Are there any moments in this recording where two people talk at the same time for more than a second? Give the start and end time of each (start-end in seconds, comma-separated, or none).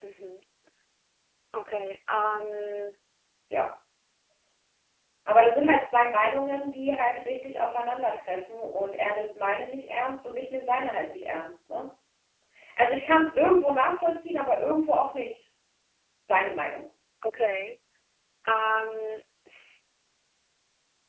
none